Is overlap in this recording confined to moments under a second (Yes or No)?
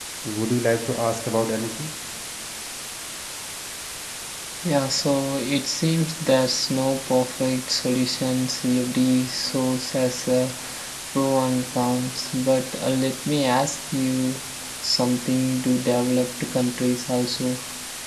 Yes